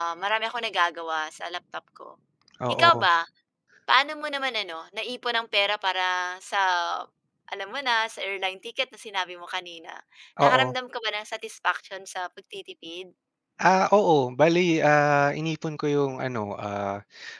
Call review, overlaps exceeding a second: none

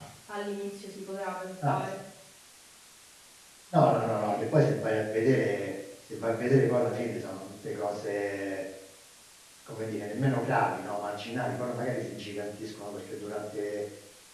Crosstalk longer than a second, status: none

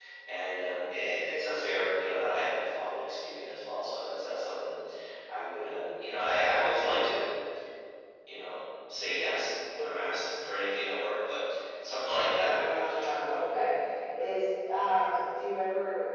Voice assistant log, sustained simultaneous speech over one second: present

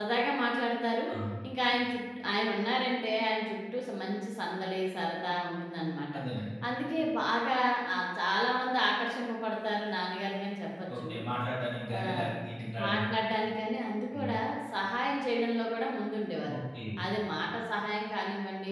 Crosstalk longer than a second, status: none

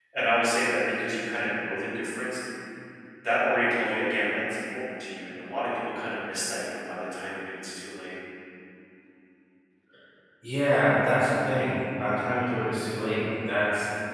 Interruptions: none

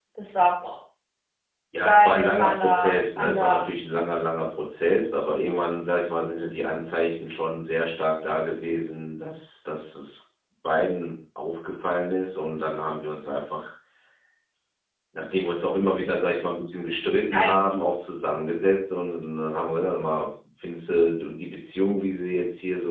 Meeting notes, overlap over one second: present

